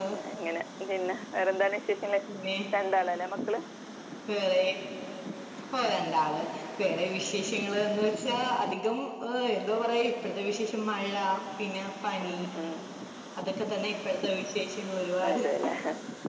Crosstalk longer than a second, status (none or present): none